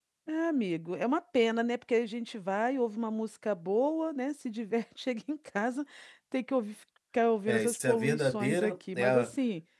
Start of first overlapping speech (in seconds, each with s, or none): 7.5 s